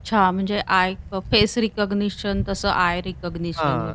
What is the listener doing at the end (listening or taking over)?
taking over